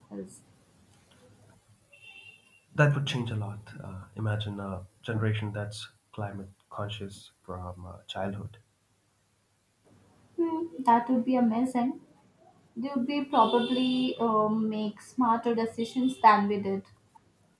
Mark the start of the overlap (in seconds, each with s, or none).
none